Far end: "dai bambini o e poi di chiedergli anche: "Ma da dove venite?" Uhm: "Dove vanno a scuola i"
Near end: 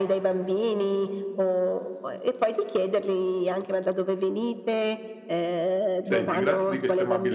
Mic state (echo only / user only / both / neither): both